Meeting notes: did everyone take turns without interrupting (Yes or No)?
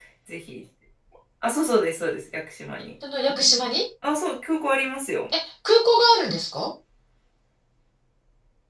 Yes